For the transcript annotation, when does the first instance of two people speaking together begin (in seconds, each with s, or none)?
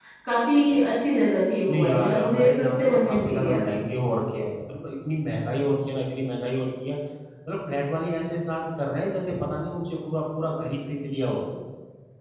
1.7 s